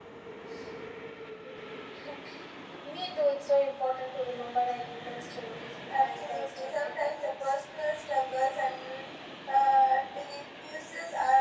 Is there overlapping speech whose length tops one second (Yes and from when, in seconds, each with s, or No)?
Yes, from 5.9 s